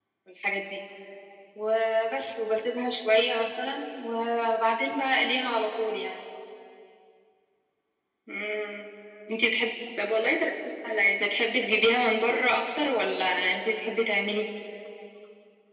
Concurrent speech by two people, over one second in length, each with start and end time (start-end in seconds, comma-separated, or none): none